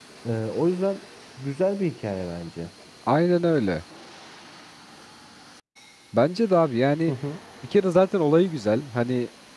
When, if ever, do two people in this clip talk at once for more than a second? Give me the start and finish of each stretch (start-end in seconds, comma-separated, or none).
none